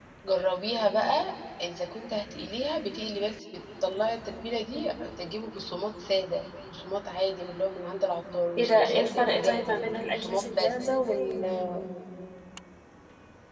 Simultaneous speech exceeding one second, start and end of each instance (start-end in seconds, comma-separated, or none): 8.6-10.7